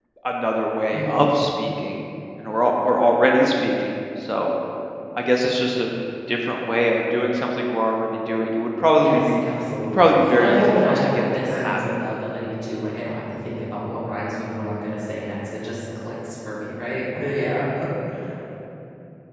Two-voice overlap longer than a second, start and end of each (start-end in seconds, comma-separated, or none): 9.9-11.9